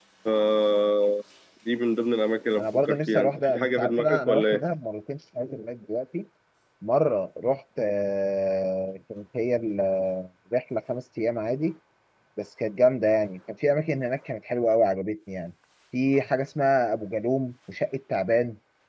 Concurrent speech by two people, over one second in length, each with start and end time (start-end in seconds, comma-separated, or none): 2.6-4.6